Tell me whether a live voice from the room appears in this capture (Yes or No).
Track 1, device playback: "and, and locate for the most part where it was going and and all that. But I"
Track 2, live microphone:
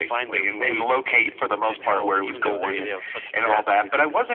Yes